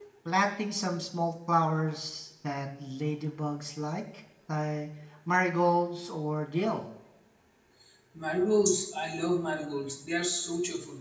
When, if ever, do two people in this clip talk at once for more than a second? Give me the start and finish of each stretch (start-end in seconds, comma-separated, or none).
none